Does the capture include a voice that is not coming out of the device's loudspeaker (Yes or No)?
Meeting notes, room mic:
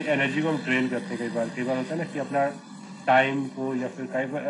No